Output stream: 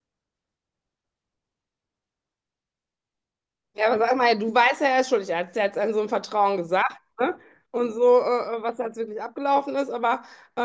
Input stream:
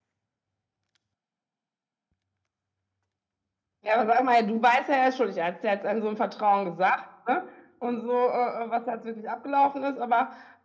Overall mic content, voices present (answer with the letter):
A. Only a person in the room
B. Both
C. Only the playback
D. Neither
C